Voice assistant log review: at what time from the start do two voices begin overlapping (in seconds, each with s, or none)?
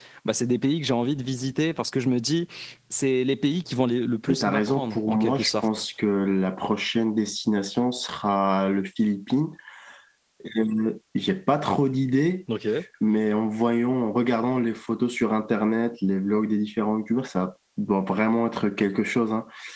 4.3 s